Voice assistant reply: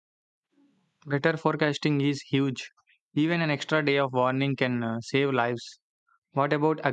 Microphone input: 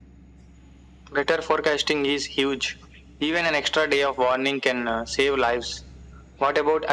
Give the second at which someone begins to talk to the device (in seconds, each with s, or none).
none